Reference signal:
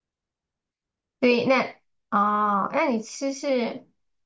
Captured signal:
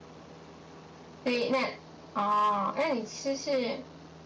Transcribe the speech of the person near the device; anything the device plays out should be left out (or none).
none